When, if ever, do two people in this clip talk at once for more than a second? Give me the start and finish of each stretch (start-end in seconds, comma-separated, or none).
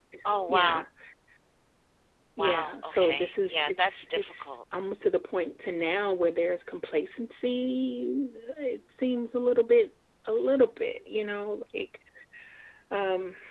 2.4-4.6